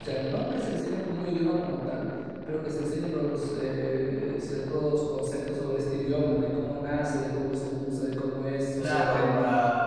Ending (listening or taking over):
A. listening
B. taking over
B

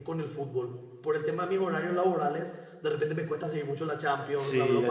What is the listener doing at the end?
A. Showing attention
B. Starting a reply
B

